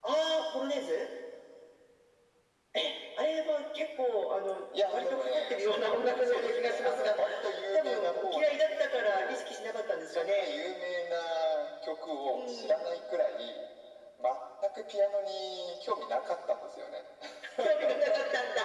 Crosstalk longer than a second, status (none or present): present